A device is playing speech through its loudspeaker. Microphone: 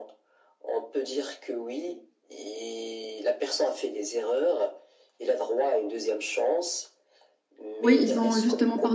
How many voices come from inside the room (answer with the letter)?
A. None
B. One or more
B